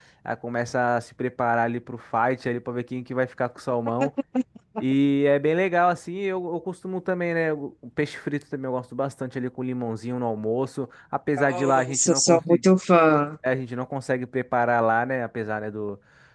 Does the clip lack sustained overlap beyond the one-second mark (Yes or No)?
No